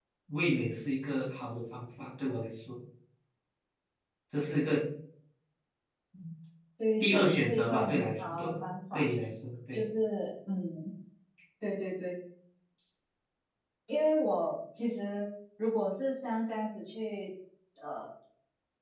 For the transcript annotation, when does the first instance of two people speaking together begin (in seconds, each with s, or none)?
7.0 s